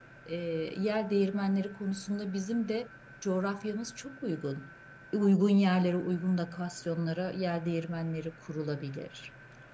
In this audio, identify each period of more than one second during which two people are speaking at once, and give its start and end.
none

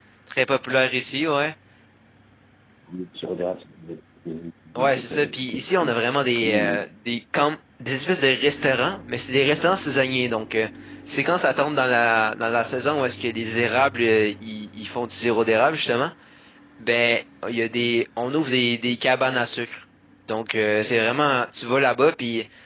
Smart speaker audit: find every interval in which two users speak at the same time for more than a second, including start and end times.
4.8-6.9

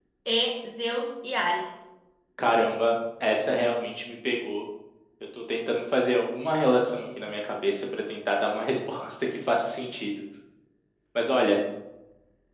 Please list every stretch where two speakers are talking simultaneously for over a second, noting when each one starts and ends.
none

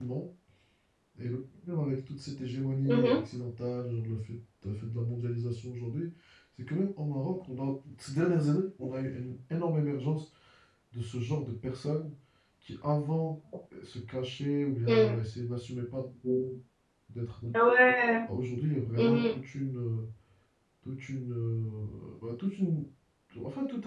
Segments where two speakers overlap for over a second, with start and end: none

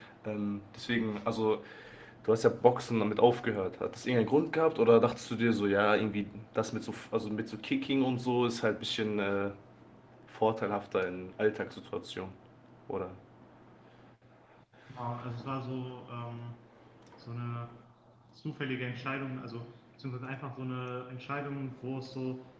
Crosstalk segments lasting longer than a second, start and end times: none

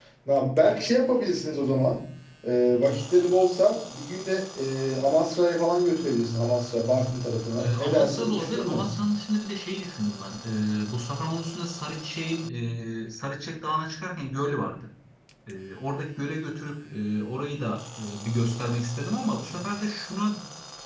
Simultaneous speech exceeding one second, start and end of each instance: 7.6-8.9

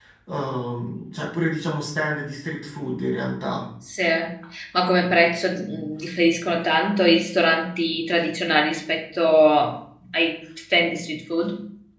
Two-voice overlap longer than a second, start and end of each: none

